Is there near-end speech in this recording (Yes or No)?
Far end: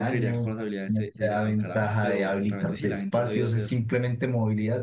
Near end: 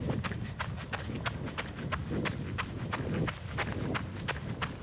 No